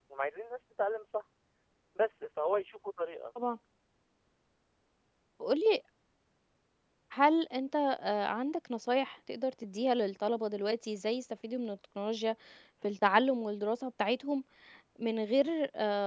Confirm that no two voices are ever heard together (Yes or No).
Yes